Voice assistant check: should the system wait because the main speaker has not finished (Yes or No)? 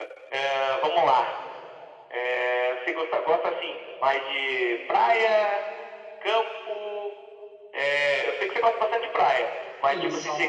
Yes